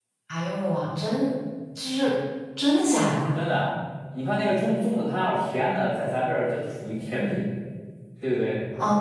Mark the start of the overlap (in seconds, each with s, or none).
none